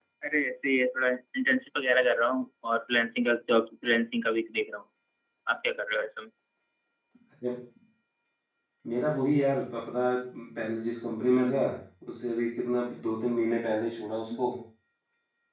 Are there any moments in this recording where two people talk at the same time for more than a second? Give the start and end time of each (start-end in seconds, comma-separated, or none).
none